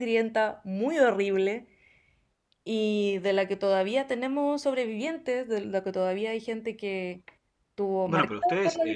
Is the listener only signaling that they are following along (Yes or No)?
No